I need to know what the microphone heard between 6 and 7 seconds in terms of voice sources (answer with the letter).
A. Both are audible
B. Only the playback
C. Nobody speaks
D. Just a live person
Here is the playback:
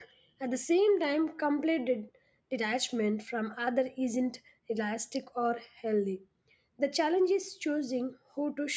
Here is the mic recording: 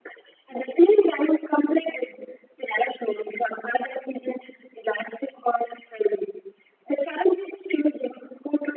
B